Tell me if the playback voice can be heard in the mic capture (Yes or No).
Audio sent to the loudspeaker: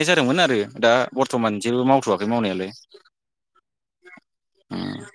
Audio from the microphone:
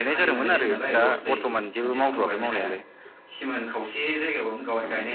Yes